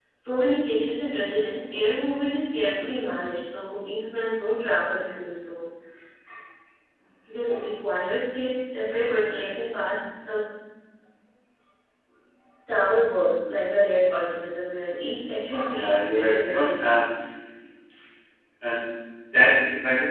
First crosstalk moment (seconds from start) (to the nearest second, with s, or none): 16 s